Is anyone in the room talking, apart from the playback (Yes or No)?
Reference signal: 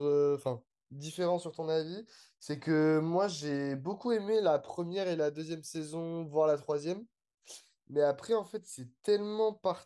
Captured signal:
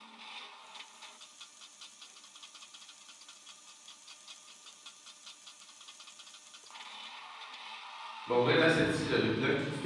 Yes